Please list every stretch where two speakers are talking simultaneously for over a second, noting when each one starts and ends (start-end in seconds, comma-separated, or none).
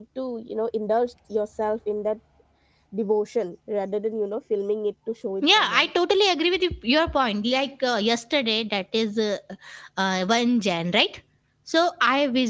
none